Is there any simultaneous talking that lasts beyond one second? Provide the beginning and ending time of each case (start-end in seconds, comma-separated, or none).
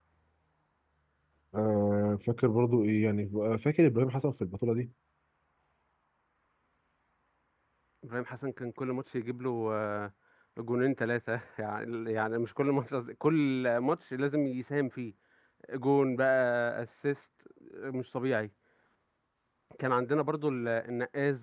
none